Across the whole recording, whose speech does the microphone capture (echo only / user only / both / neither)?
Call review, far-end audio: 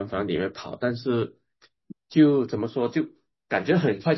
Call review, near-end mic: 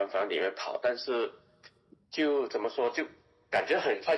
echo only